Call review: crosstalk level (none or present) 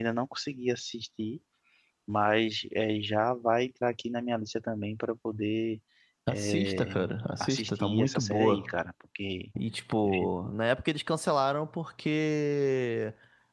present